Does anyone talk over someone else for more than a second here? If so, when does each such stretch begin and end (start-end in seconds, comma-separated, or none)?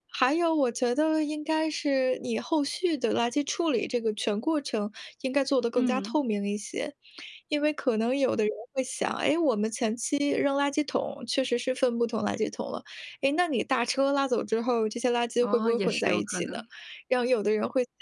15.4-16.6